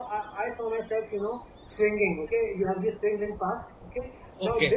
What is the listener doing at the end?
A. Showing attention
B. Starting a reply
A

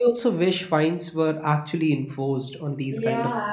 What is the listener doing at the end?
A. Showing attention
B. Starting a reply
B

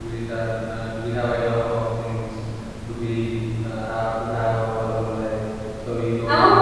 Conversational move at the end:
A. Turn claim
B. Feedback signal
A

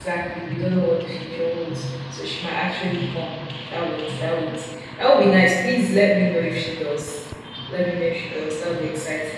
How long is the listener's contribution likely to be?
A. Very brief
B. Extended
A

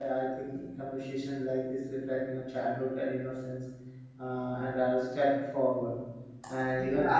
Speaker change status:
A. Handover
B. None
A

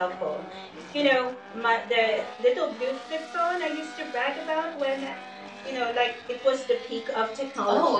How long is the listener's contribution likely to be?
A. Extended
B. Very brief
A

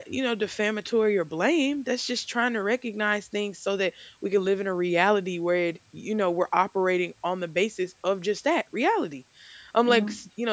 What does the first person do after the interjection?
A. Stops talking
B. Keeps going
B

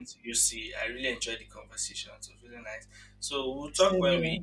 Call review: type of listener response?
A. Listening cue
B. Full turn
A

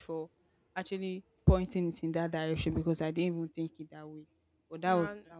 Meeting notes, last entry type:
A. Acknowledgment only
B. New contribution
A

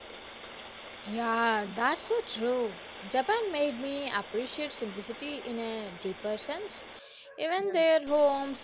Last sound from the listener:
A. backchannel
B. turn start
A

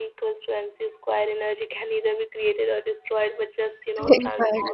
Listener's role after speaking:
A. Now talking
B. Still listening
B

